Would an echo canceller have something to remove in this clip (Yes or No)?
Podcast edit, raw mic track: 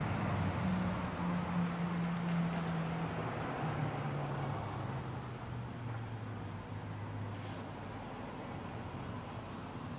No